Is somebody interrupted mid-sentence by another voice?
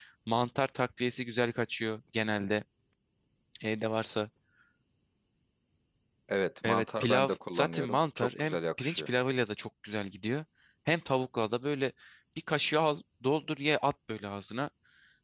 Yes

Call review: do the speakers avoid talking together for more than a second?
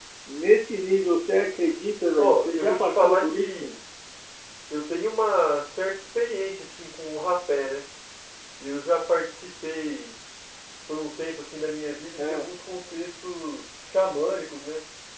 No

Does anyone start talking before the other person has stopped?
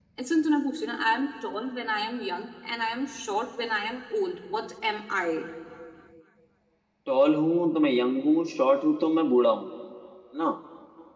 No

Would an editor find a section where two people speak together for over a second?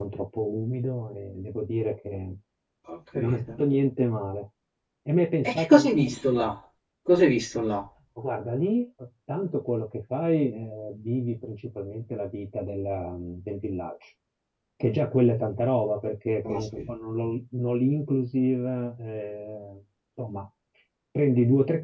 No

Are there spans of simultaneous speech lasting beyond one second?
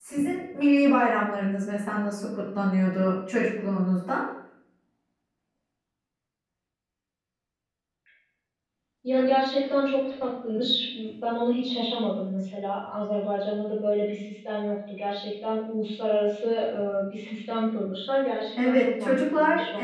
Yes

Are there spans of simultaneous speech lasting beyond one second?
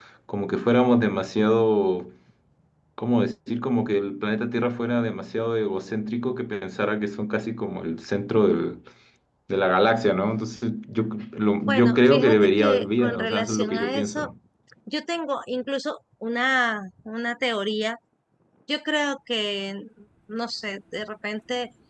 Yes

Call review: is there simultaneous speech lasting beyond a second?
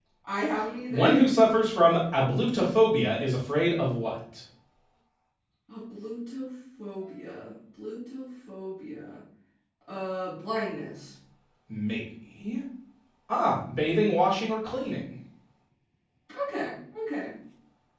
No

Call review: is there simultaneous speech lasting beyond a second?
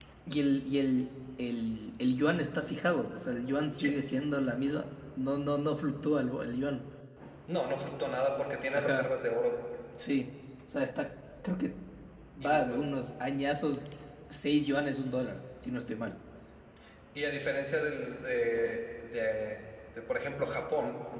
No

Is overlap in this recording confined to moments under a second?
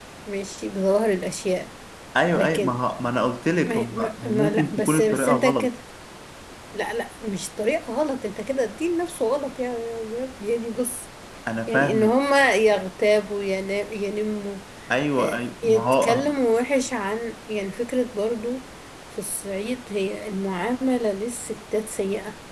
No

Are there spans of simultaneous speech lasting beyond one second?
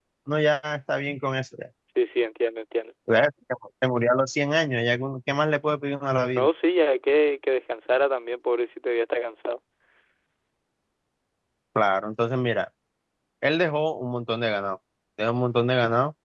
No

